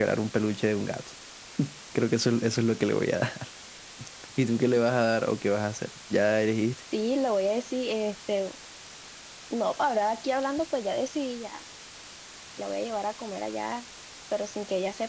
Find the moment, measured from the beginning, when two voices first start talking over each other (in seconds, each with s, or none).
none